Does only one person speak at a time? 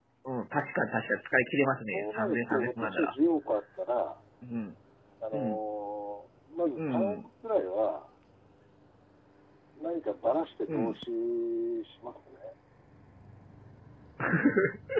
No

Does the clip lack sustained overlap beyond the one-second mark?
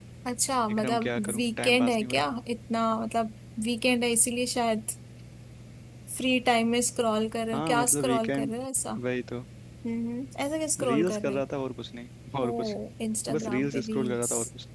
No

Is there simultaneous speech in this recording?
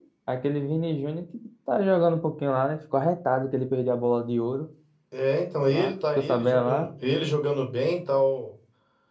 Yes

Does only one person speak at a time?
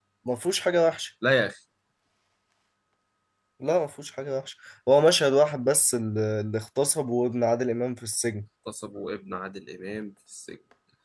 Yes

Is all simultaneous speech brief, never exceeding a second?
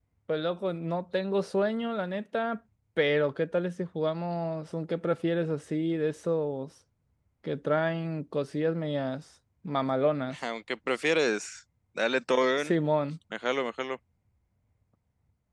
Yes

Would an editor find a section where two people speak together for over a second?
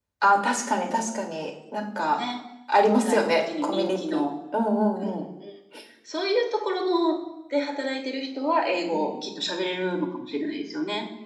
Yes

